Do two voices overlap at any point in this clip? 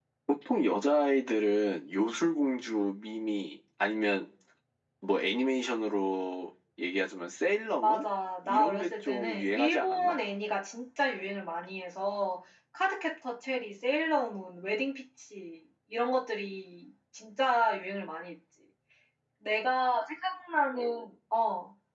Yes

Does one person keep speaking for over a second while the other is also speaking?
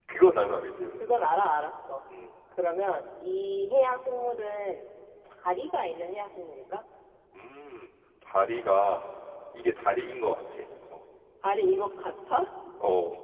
No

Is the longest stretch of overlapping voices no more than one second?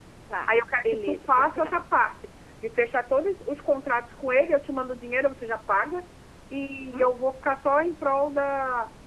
No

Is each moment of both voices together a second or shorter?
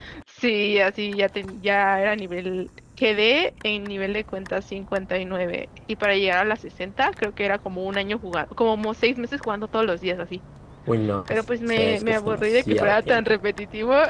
No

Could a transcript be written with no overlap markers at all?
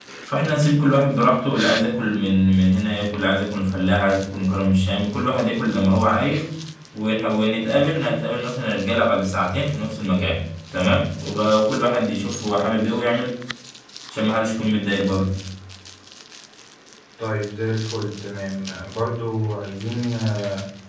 Yes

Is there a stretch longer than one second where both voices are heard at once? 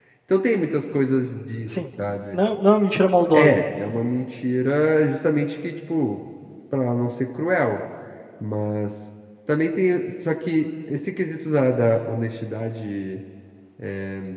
No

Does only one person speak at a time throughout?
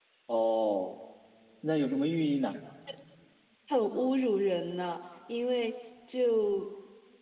Yes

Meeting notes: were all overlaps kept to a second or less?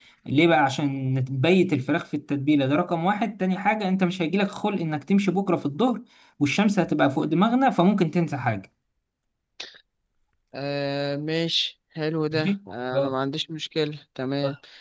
Yes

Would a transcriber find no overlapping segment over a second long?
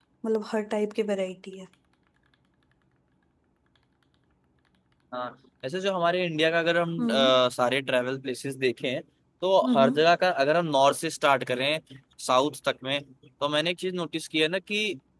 Yes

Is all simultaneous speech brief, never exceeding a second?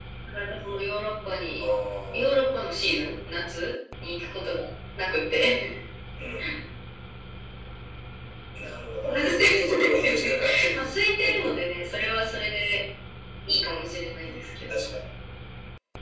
No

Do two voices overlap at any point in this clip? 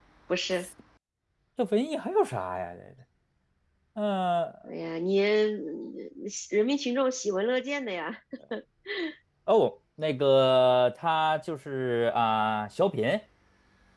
No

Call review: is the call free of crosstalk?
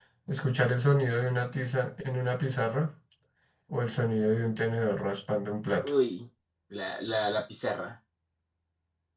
Yes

